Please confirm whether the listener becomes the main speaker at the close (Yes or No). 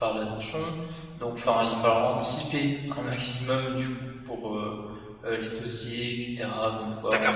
Yes